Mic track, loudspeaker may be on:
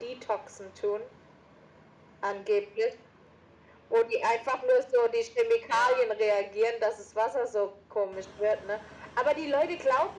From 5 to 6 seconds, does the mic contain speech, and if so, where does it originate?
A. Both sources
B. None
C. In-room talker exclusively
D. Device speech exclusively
A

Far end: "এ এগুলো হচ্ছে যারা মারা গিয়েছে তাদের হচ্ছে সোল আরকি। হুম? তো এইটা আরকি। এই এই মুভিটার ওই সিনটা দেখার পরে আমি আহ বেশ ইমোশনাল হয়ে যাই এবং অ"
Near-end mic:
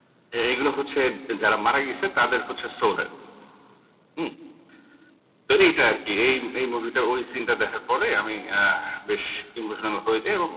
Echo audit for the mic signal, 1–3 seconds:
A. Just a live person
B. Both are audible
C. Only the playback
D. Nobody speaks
C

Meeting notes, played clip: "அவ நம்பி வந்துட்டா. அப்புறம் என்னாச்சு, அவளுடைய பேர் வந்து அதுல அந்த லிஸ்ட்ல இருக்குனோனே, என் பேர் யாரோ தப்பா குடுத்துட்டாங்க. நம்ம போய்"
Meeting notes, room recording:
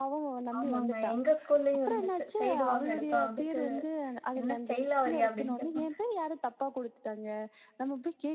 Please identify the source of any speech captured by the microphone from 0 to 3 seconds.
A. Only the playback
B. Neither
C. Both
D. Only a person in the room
C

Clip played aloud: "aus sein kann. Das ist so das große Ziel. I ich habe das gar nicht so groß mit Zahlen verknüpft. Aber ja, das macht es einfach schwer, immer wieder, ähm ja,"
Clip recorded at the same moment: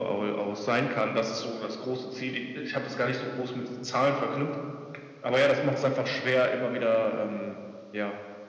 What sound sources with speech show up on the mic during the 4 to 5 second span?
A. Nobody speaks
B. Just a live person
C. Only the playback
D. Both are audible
C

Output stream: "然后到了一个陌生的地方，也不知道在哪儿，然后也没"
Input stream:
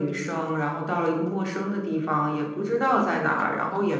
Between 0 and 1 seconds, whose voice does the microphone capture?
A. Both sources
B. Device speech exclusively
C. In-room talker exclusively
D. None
B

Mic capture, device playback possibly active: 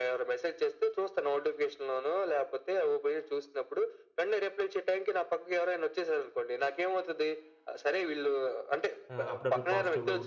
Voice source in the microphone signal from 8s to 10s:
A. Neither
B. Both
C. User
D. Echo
B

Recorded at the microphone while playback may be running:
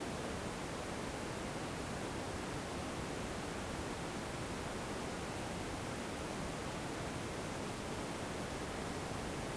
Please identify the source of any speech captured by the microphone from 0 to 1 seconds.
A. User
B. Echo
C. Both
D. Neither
D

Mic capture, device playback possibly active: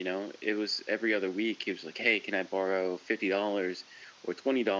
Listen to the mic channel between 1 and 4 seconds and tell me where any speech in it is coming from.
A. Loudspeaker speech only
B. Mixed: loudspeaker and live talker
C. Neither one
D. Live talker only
A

